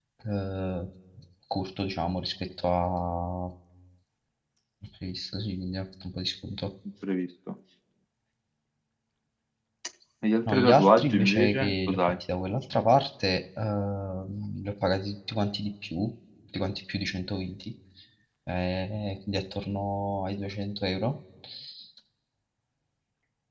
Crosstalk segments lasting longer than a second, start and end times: 10.5-12.0

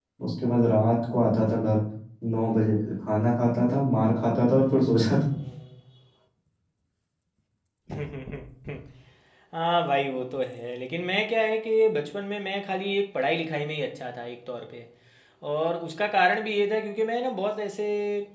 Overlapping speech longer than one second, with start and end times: none

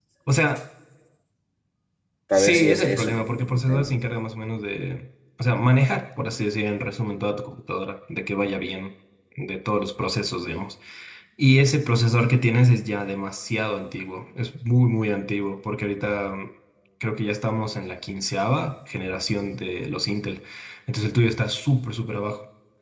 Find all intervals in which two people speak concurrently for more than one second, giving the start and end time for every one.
2.3-3.9

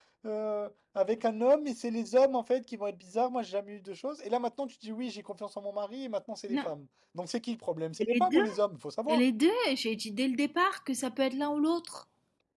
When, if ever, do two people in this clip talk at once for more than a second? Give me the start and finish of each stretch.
none

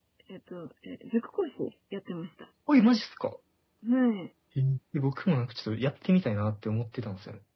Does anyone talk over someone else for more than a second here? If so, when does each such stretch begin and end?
none

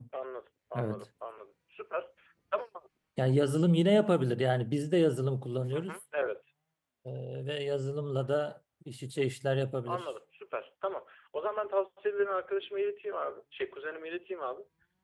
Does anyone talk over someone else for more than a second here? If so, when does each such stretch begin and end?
none

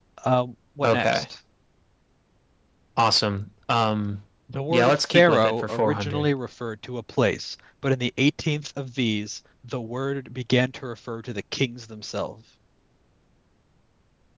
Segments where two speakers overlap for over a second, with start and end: 4.7-6.3

